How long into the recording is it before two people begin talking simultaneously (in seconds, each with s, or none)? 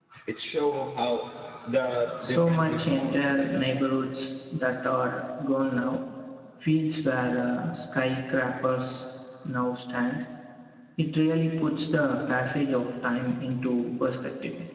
2.2 s